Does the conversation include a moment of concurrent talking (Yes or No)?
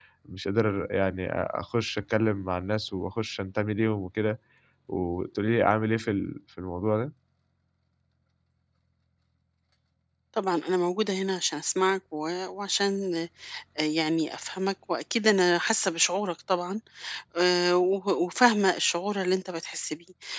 No